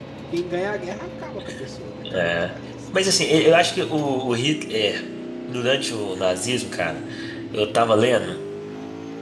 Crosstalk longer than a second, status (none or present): none